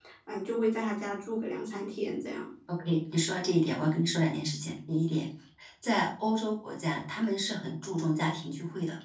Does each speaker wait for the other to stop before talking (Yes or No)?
Yes